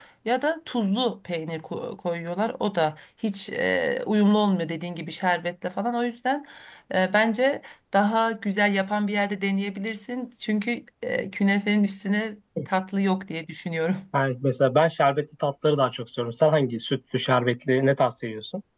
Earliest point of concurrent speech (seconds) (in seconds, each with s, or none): none